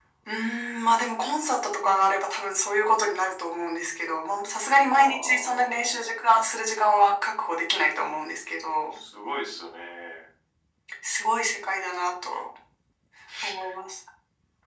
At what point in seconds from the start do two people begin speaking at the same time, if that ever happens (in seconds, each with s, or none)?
4.8 s